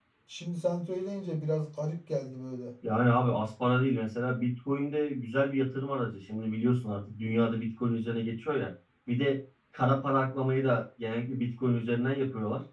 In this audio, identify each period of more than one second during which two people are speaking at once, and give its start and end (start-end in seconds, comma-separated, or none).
none